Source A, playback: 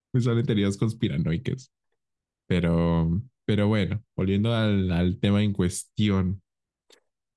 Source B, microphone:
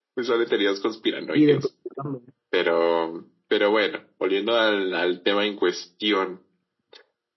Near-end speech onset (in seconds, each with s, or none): 1.3 s